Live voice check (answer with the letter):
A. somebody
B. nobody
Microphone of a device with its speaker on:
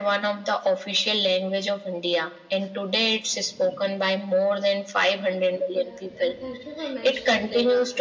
A